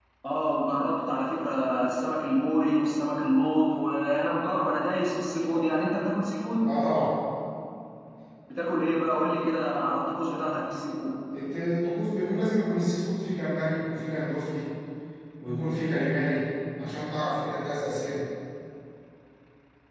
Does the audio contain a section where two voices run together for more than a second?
No

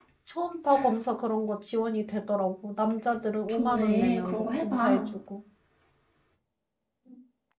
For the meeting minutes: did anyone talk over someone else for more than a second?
Yes, from 3.5 s

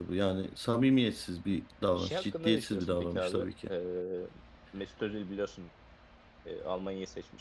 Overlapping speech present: Yes, from 2.0 s

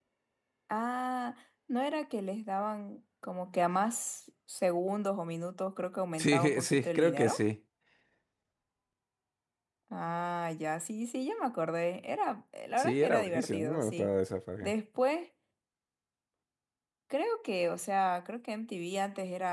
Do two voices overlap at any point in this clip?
Yes, from 6.2 s

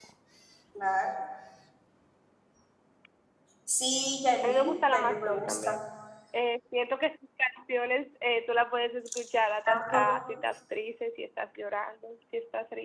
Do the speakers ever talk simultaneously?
Yes, from 4.4 s

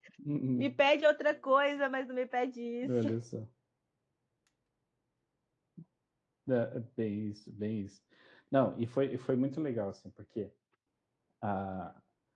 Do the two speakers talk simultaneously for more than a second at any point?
No

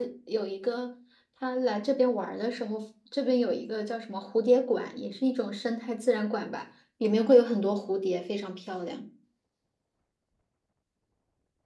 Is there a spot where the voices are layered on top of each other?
No

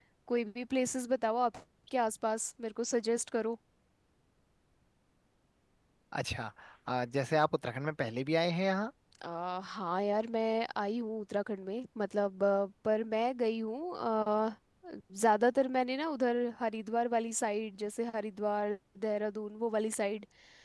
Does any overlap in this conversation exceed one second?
No

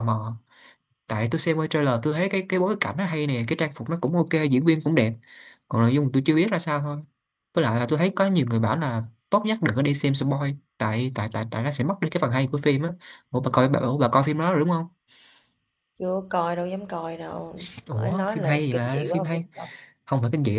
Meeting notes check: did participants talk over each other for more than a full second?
Yes, from 17.9 s

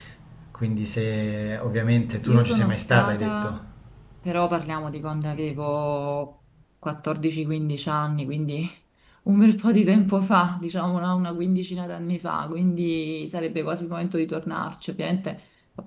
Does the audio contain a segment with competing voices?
Yes, from 2.2 s

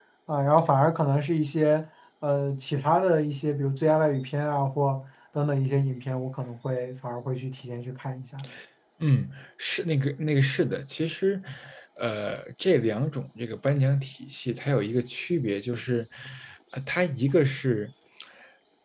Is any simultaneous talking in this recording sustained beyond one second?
No

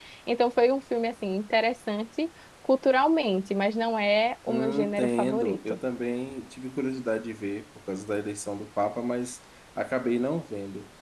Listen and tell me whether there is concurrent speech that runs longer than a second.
Yes, from 4.5 s

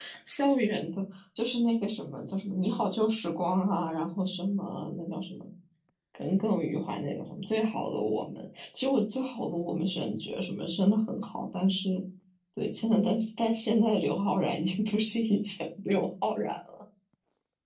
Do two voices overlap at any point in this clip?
No

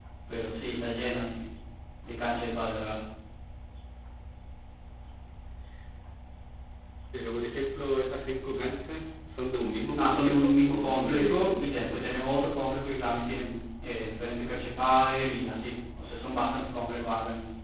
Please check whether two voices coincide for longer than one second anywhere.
Yes, from 9.9 s

